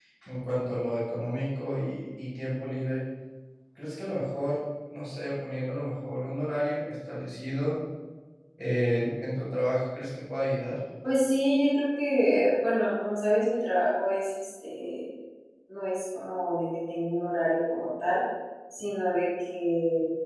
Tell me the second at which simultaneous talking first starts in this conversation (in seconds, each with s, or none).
none